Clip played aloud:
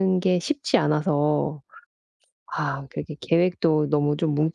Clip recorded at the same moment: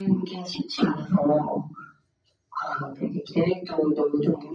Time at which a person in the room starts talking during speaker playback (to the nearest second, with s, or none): none